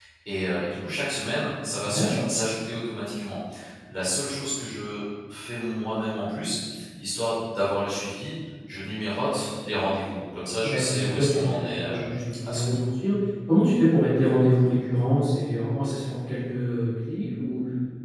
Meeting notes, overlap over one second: present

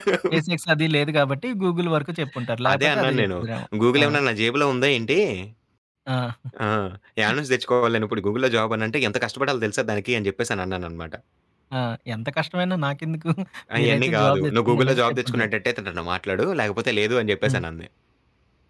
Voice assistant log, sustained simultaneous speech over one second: present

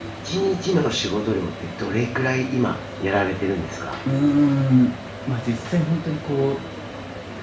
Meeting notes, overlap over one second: none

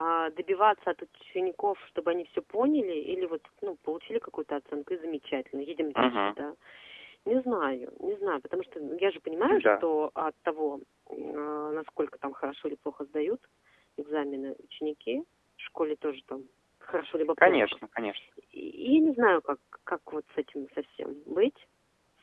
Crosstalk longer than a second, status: none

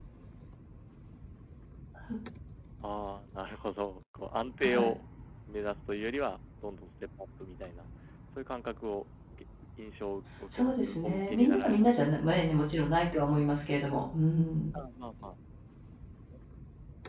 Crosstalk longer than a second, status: present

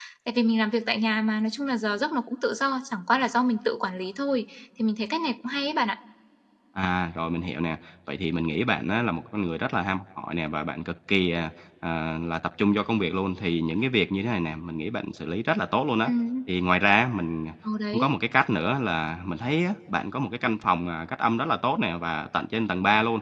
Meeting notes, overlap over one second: none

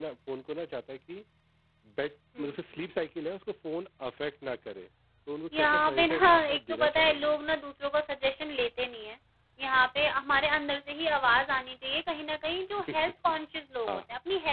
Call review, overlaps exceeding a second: present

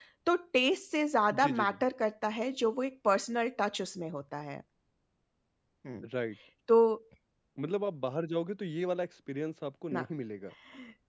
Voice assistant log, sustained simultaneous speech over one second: none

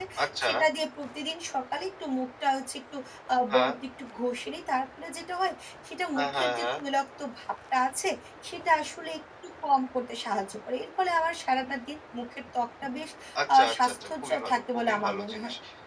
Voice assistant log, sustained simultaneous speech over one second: present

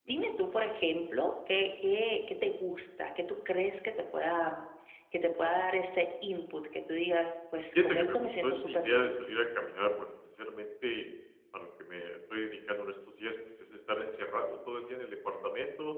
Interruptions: present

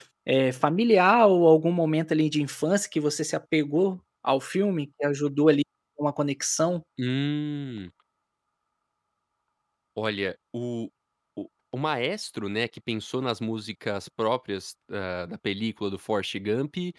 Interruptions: none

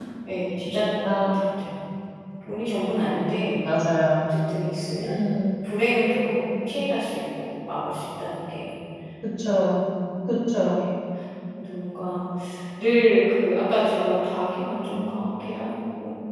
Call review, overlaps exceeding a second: none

